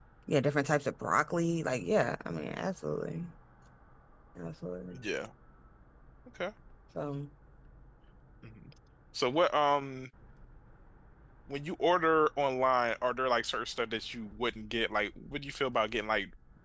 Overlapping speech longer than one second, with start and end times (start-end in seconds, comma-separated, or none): none